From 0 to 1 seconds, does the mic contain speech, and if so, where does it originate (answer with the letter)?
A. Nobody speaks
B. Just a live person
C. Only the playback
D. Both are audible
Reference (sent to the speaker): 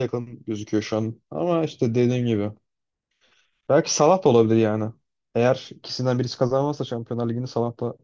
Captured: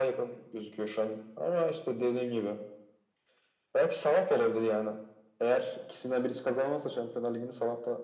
C